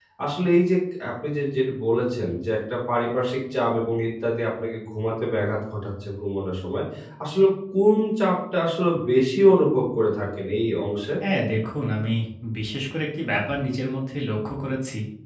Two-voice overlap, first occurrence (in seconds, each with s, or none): none